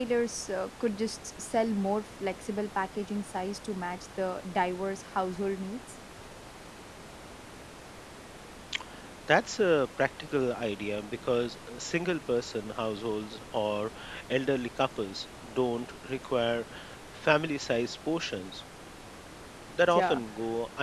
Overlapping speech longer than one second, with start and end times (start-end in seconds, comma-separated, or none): none